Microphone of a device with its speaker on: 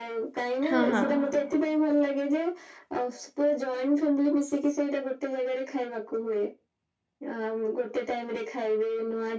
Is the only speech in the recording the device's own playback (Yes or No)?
No